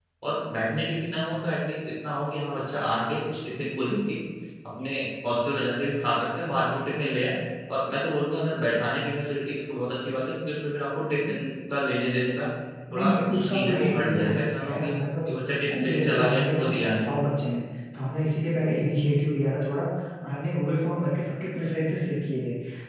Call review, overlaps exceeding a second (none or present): present